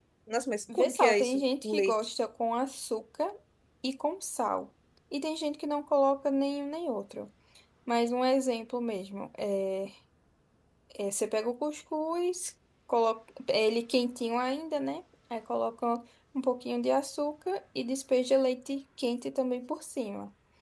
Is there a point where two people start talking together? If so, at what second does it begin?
1 s

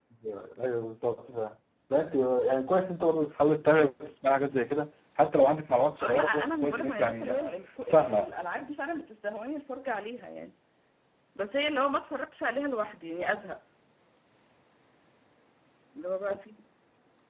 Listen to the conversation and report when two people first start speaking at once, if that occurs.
6 s

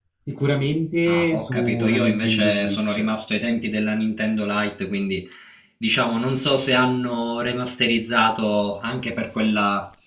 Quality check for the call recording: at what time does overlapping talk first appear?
1 s

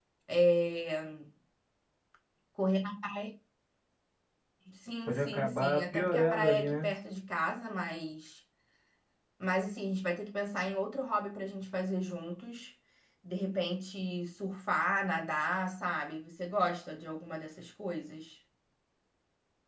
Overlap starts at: 5 s

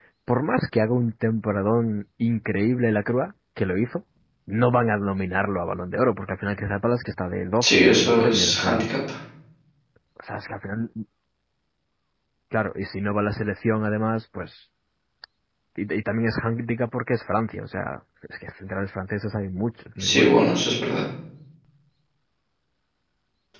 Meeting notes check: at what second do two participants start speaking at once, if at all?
8 s

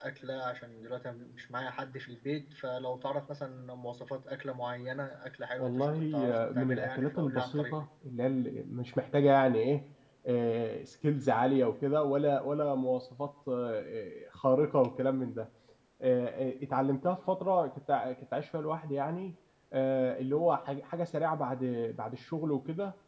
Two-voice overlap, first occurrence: 6 s

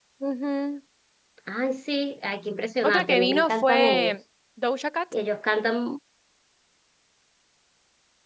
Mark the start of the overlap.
3 s

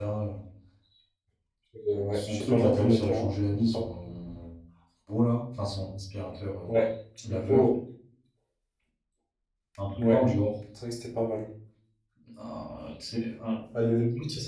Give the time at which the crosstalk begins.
2 s

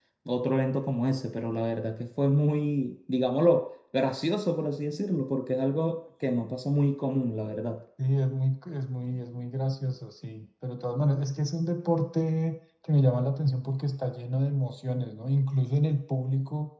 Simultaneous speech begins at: none

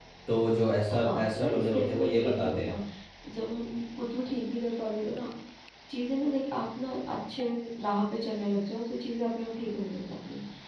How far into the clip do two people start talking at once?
1 s

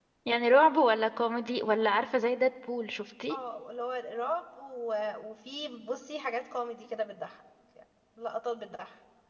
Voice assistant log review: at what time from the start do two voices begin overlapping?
none

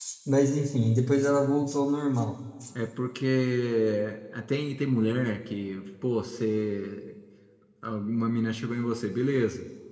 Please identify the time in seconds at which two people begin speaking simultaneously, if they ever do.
none

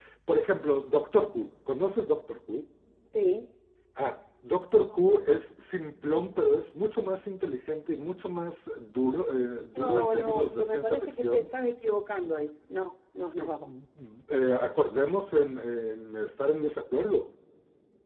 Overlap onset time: 10 s

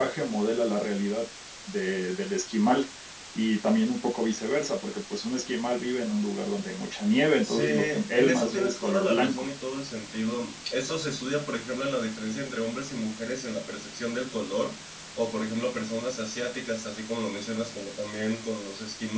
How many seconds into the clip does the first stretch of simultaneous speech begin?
7 s

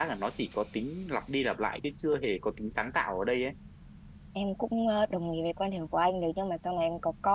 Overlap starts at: none

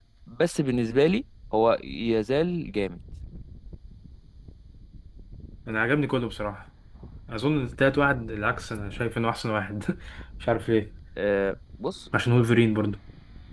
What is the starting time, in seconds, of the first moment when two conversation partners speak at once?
none

